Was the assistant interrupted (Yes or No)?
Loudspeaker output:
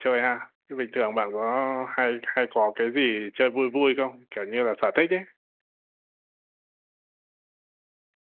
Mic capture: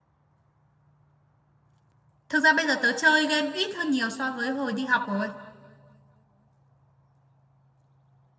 Yes